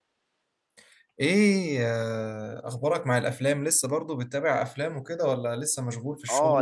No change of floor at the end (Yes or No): No